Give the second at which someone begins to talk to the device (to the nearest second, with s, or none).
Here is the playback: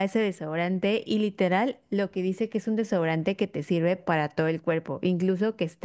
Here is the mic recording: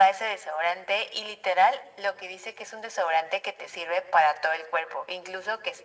none